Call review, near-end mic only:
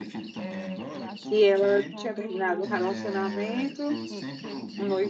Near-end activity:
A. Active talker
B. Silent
A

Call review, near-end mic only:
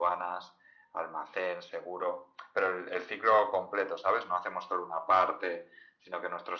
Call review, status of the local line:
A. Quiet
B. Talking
A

